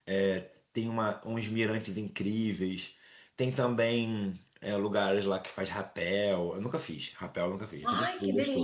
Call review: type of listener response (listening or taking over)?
taking over